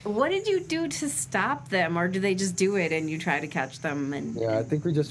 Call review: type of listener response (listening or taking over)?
taking over